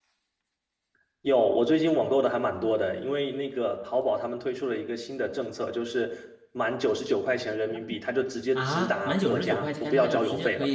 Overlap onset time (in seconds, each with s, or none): 8.6 s